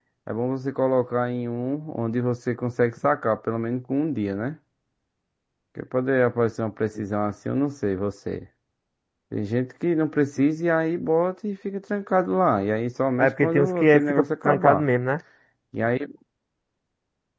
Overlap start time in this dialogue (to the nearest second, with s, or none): 13 s